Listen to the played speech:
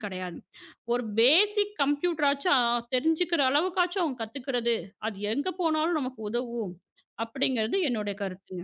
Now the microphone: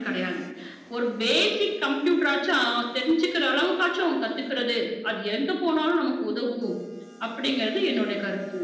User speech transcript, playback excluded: none

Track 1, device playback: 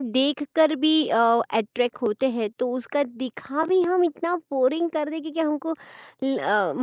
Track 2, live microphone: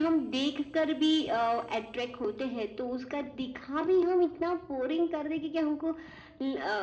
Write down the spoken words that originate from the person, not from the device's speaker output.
none

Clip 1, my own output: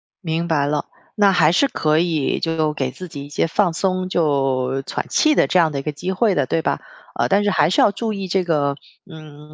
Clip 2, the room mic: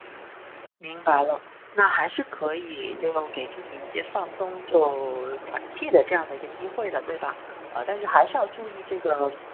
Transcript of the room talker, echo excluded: none

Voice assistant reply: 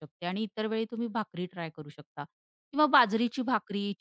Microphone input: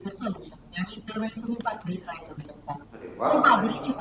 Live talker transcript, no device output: अरे वाह! हं.

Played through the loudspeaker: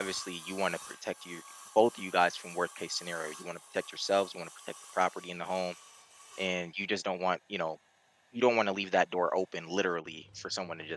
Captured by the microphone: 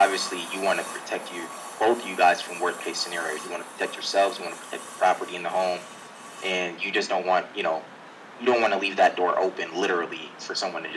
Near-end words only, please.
none

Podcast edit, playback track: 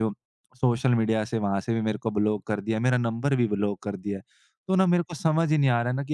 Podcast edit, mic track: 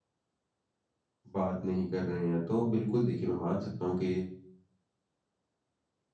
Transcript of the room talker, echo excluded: बात नहीं कर रहे हैं। तो बिल्कुल देखिए मैं मान सकता हूँ कि

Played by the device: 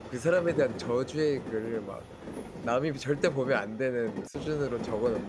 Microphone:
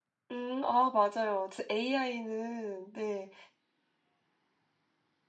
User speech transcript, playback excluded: 음. 아 맞아요. AI는 네.

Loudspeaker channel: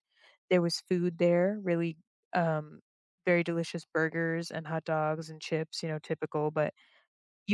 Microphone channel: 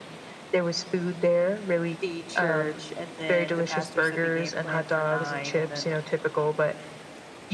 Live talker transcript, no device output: the church and then the pastor said the game plan for 9 and then

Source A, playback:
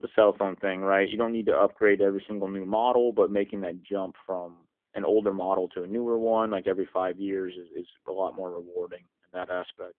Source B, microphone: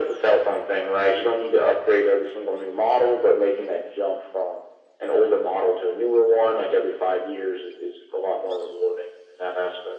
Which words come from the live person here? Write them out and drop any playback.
none

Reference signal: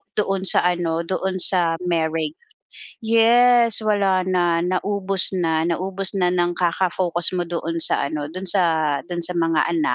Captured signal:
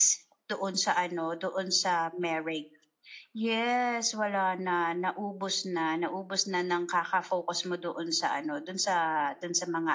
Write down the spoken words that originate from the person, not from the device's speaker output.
none

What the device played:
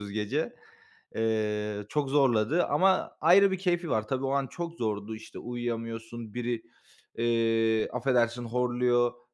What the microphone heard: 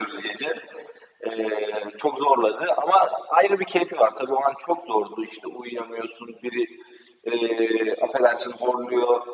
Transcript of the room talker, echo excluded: none

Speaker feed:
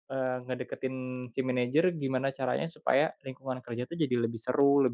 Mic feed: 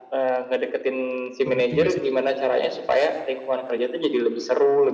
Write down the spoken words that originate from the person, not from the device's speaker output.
Bener juga sih.

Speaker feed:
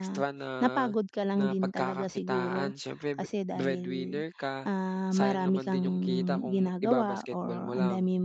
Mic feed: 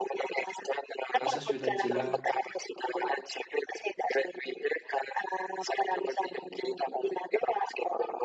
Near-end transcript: nasa siyudad sila.

